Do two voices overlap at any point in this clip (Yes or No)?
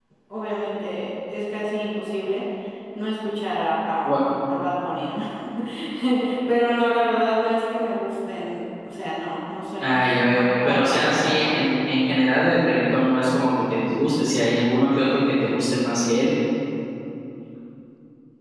Yes